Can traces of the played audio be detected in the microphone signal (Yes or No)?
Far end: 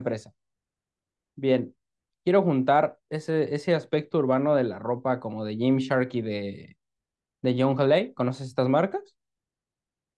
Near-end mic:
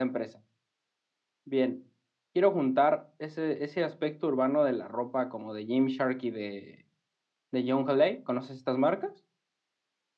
Yes